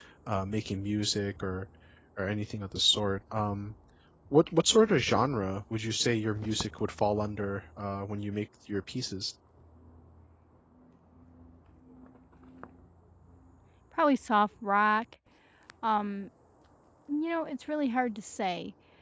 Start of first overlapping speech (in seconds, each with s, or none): none